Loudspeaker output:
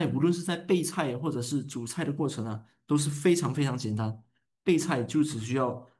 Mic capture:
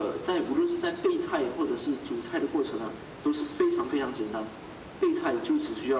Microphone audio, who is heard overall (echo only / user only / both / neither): echo only